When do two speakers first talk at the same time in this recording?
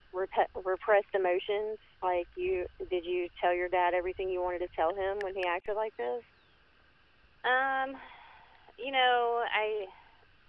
none

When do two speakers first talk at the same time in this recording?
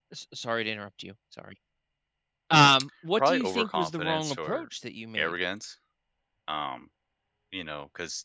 3.2 s

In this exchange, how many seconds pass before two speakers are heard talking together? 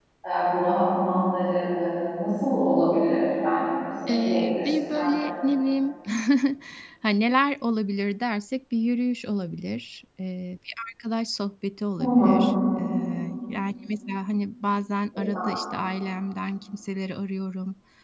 4.1 s

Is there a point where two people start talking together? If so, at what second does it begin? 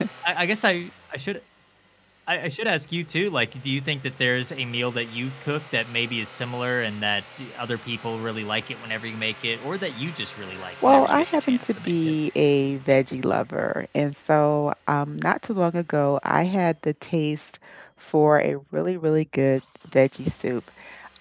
10.8 s

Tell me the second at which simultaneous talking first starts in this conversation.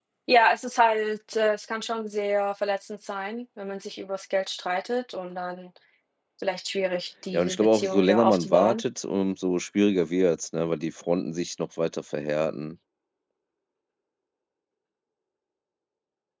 7.3 s

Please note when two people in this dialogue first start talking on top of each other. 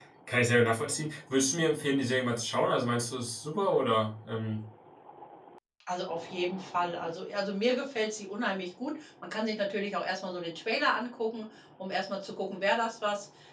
none

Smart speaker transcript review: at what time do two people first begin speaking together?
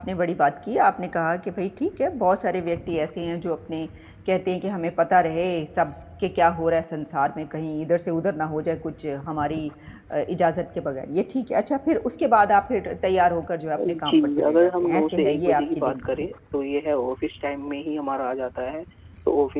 13.8 s

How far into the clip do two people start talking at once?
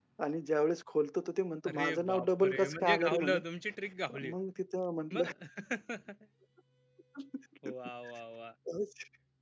1.6 s

